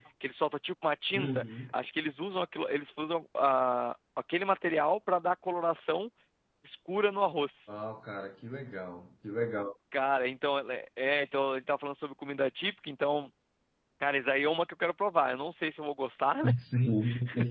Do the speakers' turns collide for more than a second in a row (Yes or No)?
No